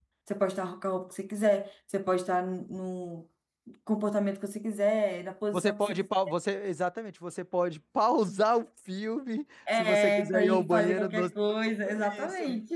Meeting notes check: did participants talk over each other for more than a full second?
Yes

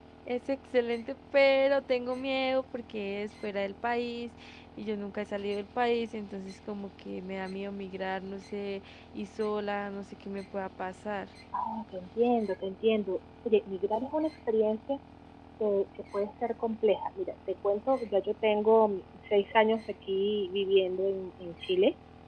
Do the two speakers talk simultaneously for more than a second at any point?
No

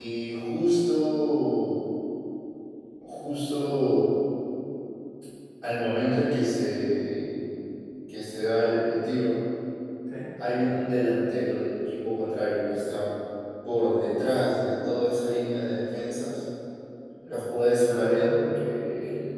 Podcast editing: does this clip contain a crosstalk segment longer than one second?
Yes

